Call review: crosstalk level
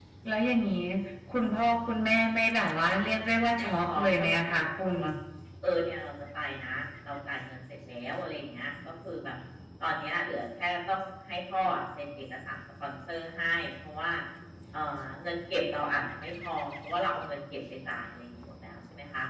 present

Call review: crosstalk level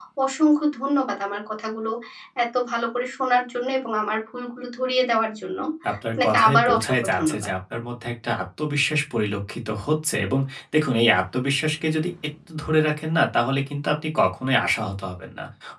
present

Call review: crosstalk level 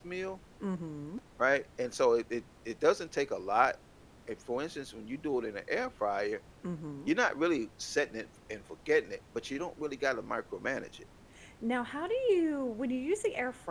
none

